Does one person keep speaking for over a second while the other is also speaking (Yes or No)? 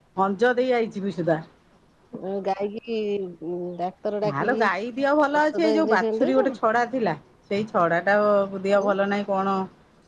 Yes